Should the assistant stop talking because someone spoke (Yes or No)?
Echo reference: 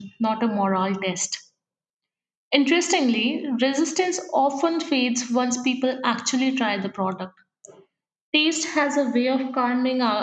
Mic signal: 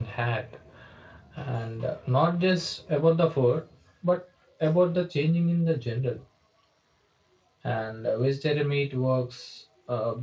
Yes